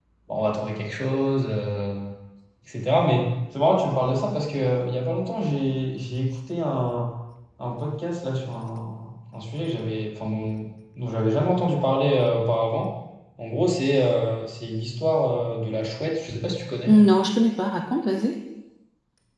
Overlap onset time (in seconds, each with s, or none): none